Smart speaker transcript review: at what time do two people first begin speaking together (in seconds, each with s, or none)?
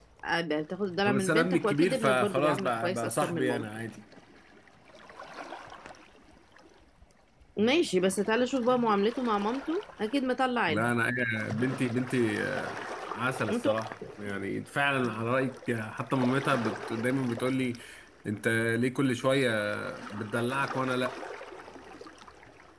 1.1 s